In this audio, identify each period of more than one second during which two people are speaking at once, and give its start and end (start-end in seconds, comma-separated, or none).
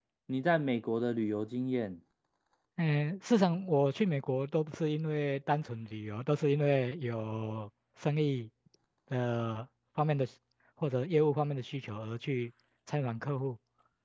none